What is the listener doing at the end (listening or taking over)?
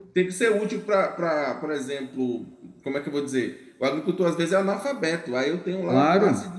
listening